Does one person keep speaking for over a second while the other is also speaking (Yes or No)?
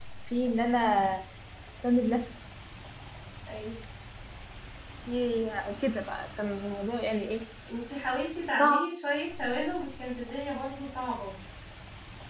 No